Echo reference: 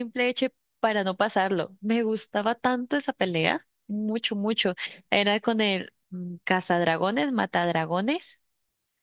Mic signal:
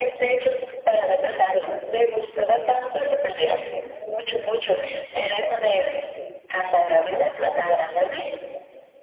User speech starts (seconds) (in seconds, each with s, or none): none